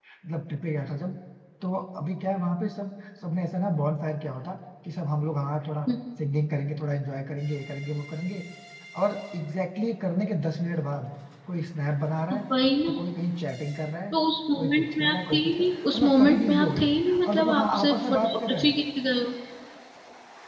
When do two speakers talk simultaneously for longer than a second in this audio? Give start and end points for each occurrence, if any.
14.6-16.9, 17.3-18.7

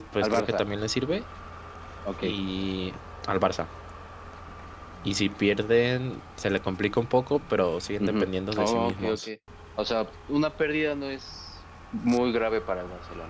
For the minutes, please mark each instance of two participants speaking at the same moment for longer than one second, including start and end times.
8.0-9.3

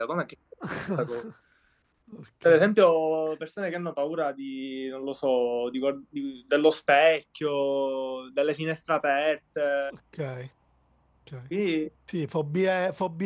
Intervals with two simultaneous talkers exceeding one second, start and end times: none

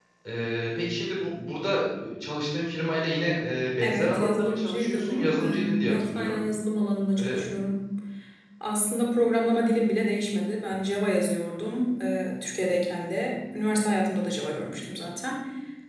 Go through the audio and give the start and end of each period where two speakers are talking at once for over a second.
3.8-6.4

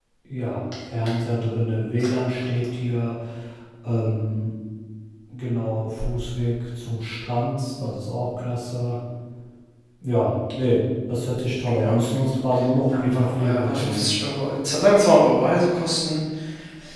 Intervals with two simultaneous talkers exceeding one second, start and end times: 12.9-14.1

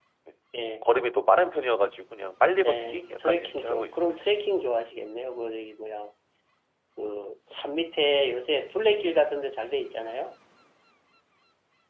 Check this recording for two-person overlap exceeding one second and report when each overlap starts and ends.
2.6-4.1

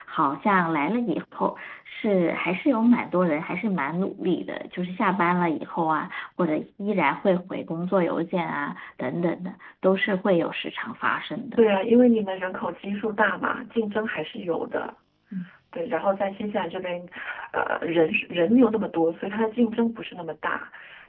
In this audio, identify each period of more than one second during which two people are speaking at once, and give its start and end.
none

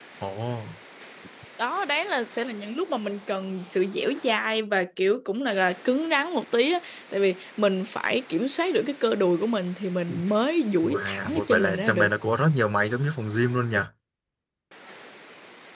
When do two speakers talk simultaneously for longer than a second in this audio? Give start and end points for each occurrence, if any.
10.8-12.1

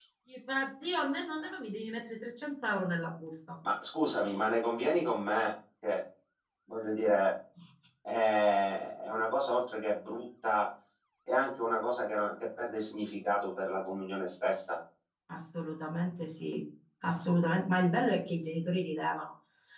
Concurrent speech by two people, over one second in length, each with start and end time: none

